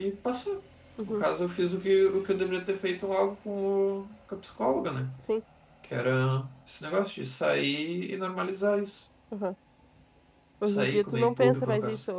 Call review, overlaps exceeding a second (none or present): present